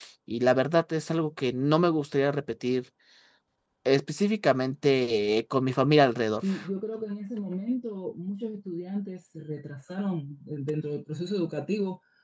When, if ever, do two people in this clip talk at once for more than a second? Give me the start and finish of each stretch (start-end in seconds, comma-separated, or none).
none